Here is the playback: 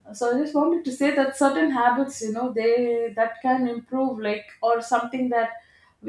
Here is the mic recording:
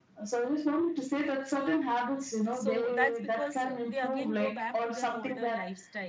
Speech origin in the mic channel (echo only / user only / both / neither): both